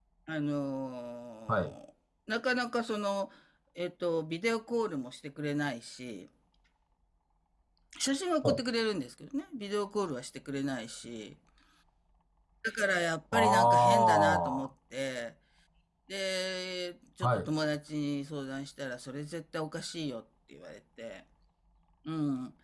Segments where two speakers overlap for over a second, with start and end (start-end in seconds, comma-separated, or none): 13.3-14.7